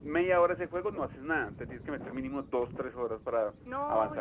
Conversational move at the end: taking over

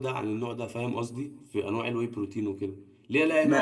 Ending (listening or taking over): listening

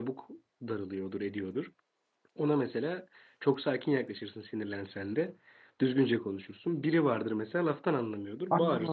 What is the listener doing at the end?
taking over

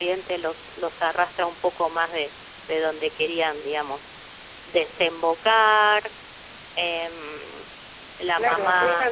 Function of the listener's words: taking over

